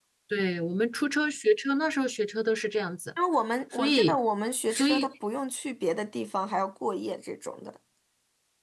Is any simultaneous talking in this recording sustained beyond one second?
No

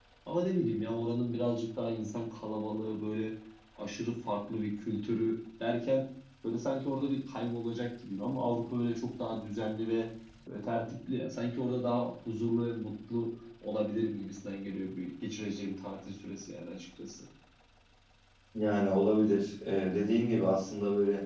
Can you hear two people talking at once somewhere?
No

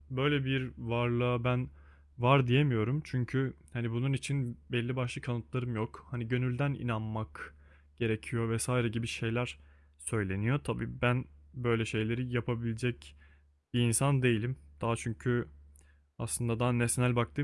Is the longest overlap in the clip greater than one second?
No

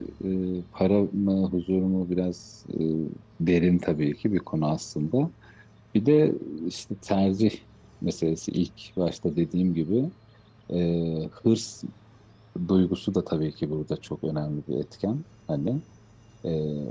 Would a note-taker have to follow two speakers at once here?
No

